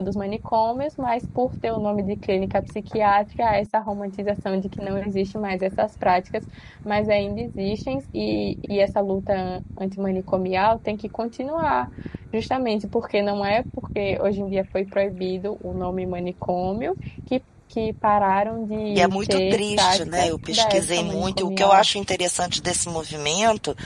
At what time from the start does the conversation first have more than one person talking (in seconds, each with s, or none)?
18.9 s